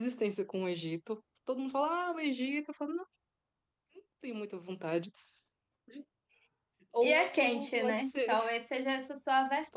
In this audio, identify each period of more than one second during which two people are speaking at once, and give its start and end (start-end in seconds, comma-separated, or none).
7.0-8.3